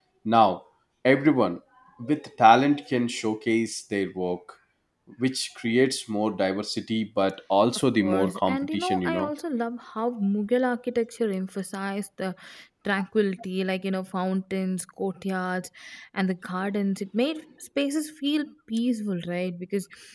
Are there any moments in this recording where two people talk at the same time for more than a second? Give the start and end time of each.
7.9-9.3

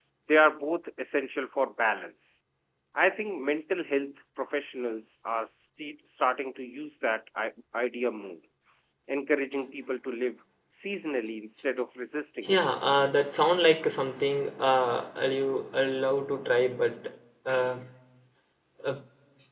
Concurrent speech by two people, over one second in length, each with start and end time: none

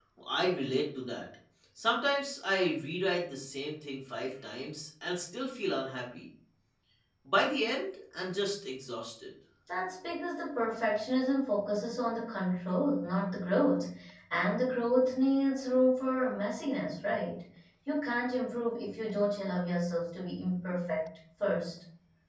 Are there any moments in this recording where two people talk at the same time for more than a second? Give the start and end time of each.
none

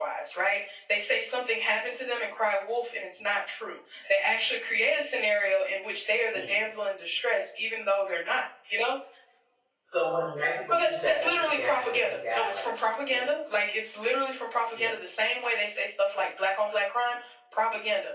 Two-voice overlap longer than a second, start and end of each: 10.7-13.2

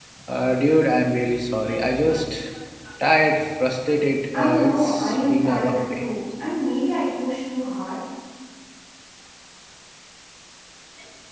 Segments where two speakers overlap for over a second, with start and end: 4.3-6.0

